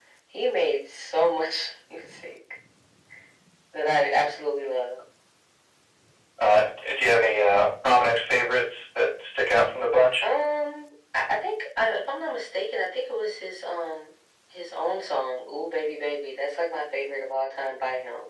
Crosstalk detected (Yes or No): No